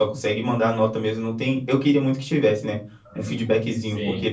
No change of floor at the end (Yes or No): Yes